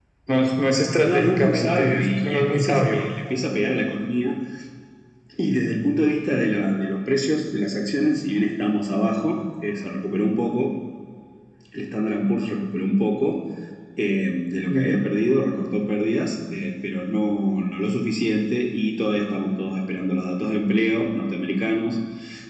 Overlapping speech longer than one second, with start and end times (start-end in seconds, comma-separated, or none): 1.0-3.0